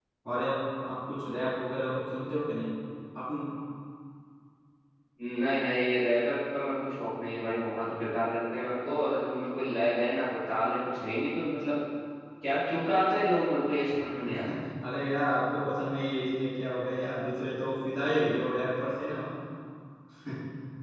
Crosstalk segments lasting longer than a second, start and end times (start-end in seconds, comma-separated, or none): none